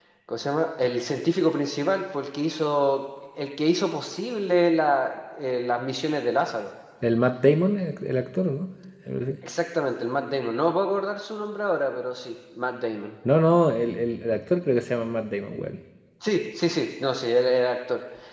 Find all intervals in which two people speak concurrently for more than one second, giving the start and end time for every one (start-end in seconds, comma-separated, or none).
none